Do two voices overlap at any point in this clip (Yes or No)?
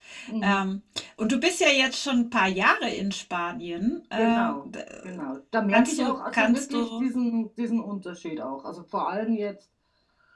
Yes